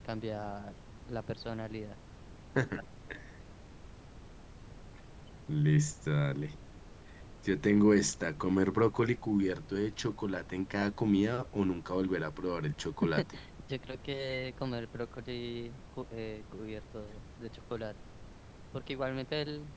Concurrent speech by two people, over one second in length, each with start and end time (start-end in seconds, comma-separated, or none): none